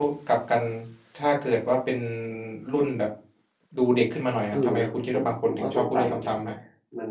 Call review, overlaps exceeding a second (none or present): present